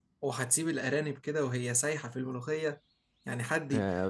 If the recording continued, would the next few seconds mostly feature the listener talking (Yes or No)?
Yes